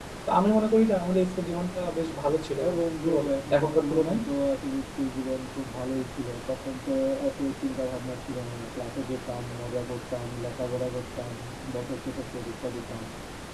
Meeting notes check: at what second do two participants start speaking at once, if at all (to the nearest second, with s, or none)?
3 s